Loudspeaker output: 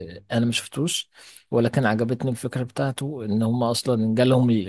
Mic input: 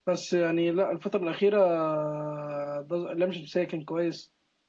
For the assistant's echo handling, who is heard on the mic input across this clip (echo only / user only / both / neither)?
user only